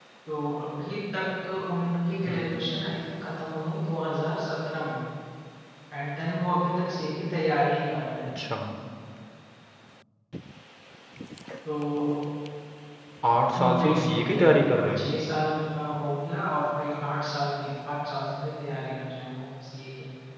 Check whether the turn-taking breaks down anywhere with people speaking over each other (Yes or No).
Yes